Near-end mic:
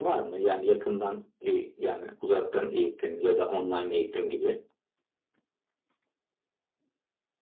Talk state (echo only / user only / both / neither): echo only